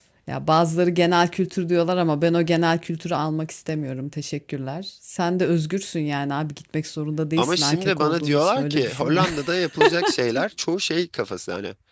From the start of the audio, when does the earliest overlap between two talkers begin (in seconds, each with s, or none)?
7.4 s